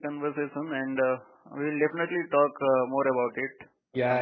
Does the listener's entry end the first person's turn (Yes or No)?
Yes